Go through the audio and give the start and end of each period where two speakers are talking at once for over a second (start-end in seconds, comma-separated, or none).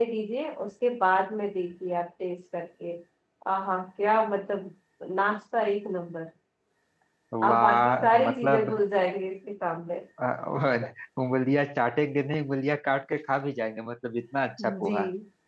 7.5-8.7